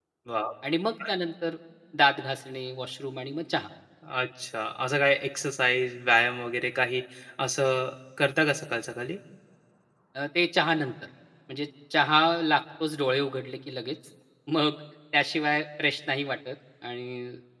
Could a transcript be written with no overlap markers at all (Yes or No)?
Yes